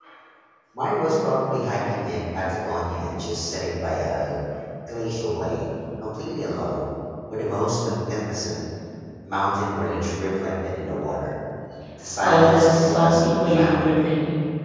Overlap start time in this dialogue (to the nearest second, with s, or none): 12 s